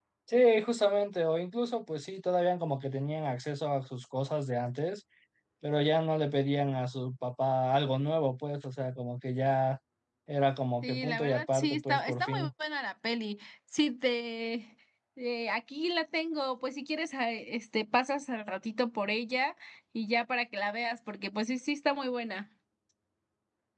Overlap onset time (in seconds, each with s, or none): 10.8 s